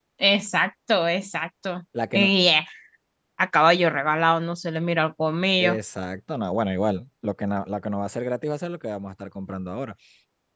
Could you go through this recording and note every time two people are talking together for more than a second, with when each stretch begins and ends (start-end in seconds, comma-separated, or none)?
none